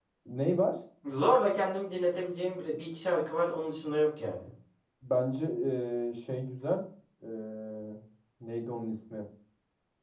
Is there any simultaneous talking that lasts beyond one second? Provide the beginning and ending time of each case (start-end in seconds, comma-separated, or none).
none